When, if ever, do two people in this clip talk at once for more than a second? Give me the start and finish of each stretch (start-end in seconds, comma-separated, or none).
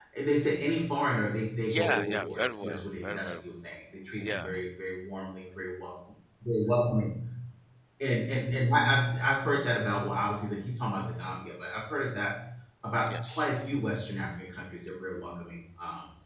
1.6-3.4